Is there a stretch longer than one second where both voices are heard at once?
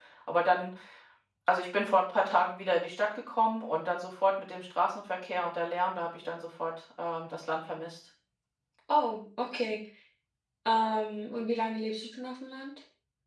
No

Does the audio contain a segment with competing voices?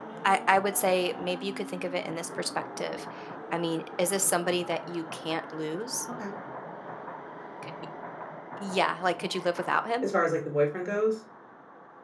No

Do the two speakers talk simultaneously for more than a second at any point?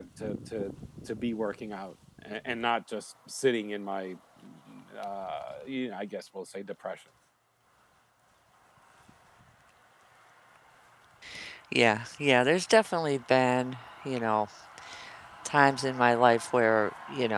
No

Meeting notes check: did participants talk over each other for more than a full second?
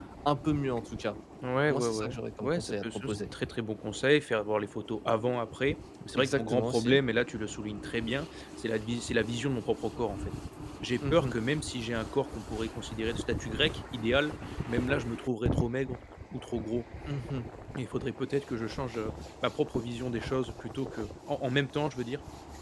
Yes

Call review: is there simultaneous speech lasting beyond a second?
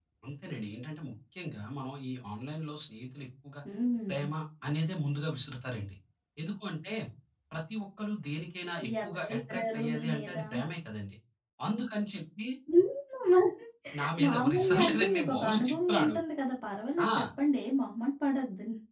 Yes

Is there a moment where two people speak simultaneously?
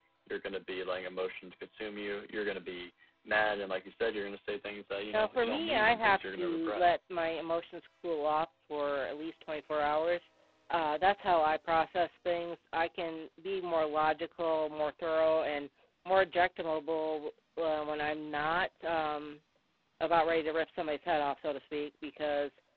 Yes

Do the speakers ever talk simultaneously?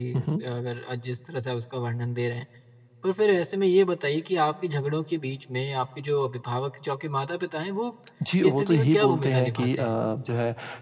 Yes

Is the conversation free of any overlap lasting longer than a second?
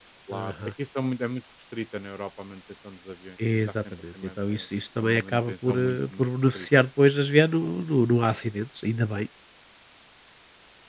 No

